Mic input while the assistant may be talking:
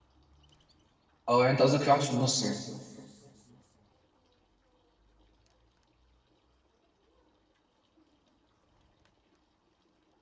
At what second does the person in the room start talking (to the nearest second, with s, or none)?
1 s